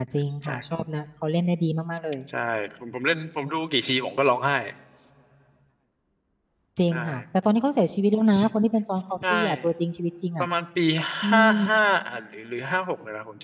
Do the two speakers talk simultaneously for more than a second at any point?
No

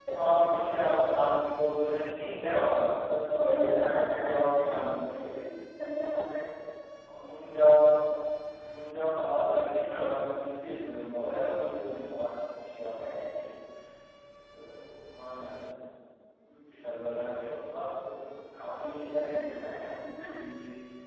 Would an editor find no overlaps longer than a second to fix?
No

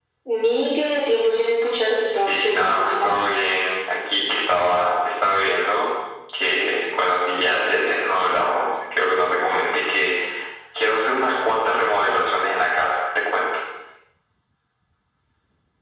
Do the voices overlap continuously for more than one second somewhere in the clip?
Yes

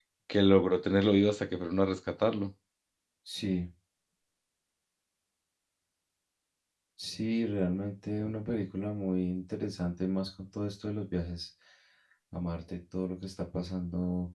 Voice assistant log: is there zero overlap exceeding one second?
Yes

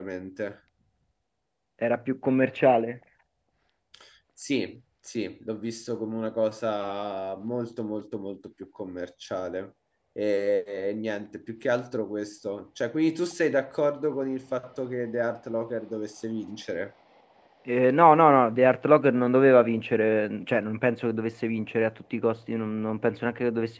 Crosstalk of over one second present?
No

